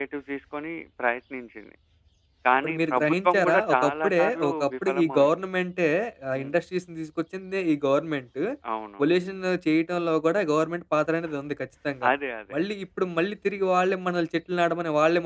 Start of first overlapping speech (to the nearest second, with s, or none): 3 s